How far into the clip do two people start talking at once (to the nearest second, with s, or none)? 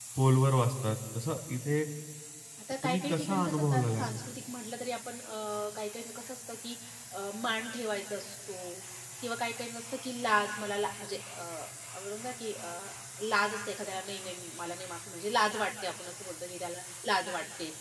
3 s